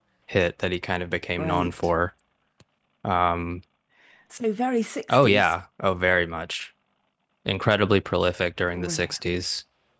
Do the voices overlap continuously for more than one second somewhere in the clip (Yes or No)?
No